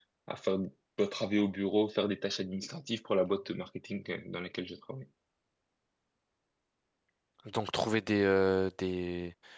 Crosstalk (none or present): none